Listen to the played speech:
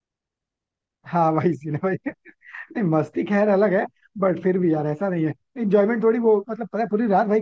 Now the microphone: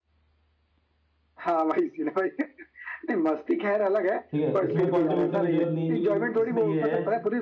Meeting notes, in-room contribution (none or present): present